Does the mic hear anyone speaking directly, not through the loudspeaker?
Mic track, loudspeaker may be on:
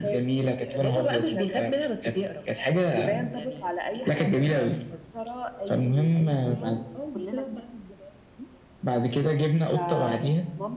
Yes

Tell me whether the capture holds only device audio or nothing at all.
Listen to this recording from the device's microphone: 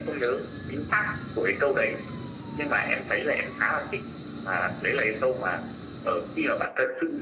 Yes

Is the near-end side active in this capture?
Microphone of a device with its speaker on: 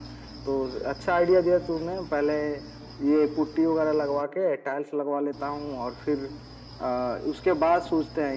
No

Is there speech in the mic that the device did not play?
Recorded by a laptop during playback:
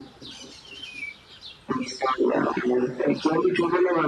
No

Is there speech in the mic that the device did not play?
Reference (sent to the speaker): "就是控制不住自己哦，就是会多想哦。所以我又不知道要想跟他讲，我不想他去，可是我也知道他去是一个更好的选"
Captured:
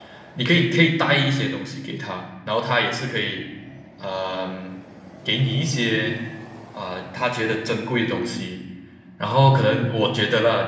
Yes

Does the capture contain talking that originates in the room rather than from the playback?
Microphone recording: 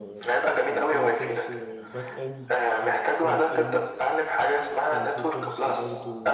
Yes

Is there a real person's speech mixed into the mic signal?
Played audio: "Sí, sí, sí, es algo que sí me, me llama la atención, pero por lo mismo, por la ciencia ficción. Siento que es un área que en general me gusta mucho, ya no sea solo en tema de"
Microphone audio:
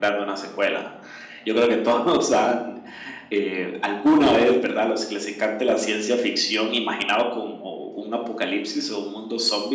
Yes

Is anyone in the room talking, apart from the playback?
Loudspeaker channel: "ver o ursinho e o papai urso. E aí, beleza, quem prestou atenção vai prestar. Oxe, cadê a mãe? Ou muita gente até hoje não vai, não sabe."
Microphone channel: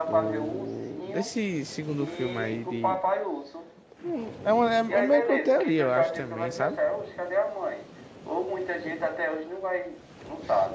Yes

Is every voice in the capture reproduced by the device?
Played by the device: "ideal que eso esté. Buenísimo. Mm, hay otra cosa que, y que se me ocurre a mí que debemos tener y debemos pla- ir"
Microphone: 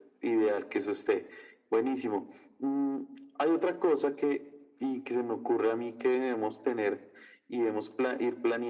Yes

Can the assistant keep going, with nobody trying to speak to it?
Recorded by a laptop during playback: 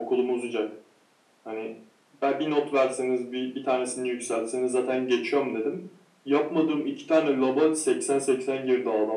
Yes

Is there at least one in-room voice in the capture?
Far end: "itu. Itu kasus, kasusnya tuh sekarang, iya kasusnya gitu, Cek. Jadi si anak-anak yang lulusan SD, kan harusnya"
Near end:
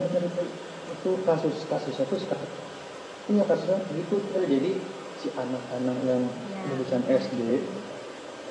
Yes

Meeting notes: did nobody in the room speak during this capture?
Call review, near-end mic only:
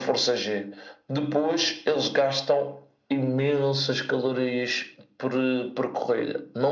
Yes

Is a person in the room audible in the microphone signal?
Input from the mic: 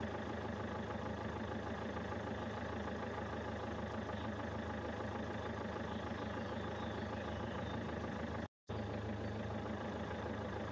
No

